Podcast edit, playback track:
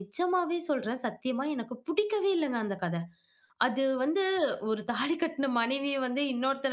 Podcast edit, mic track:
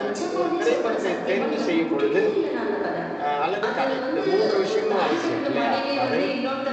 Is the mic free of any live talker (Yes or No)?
No